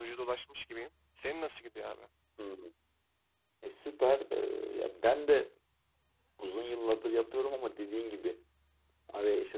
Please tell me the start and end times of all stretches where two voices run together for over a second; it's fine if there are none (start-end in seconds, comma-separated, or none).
none